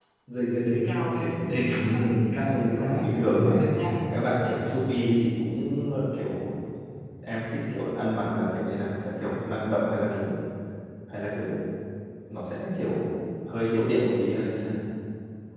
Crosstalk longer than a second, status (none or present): present